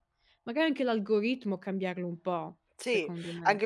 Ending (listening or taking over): taking over